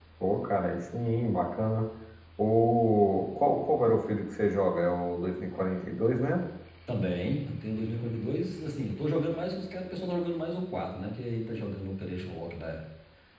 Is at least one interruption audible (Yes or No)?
No